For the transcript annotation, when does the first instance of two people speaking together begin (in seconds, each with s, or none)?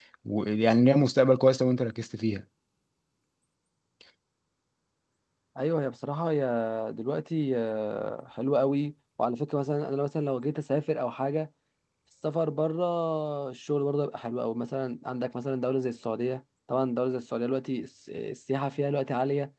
none